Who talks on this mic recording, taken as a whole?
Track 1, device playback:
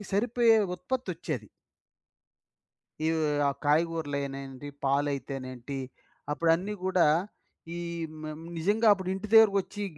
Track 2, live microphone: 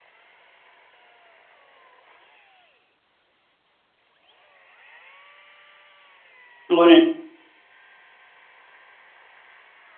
user only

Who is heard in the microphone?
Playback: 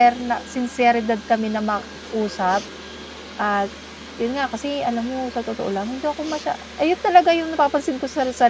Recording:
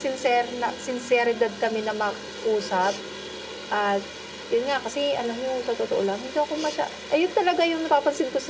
echo only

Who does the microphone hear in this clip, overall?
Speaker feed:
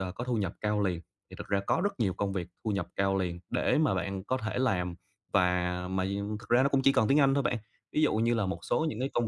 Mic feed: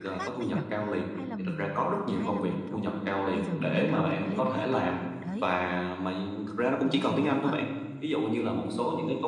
both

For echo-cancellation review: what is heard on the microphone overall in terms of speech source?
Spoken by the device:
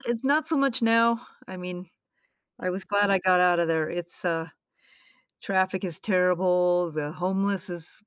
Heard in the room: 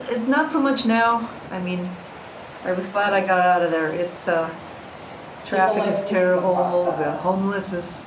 both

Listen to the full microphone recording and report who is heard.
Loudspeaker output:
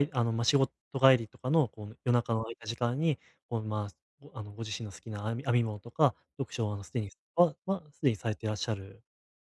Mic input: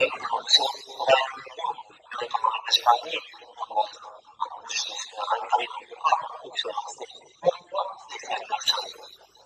echo only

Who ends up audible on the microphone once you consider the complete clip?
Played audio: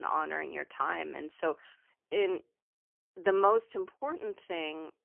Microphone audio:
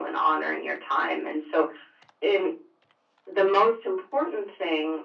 echo only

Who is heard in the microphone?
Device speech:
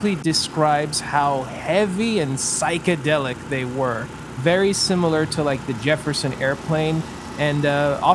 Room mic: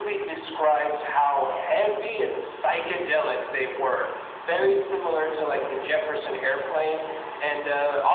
echo only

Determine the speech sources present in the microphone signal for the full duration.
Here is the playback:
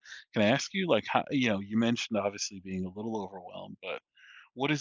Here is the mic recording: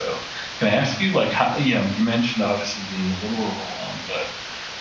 echo only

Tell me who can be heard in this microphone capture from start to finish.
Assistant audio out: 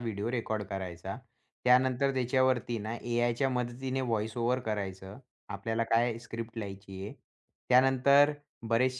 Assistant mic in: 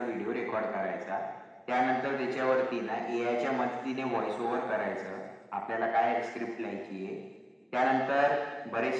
echo only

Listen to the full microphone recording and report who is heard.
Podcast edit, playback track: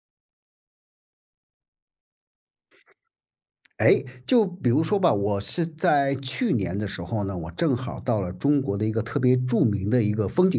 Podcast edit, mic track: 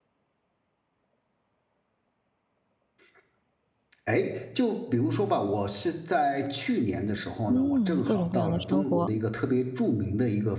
both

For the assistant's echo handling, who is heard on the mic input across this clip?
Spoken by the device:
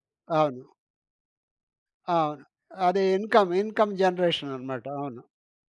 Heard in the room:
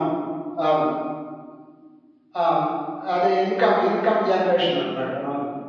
echo only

